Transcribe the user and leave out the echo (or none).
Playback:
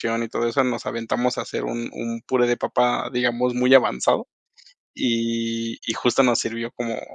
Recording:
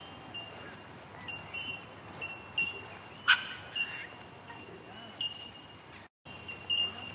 none